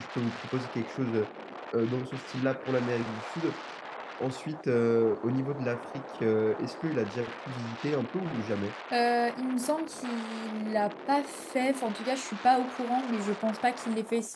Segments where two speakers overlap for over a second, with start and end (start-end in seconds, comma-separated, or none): none